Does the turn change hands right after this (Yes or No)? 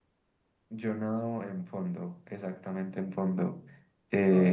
No